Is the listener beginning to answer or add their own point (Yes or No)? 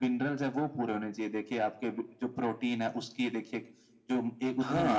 Yes